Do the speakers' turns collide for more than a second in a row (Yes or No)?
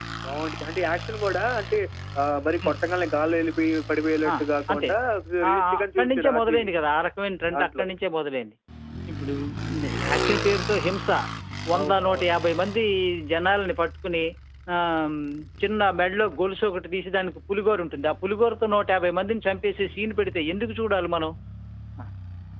Yes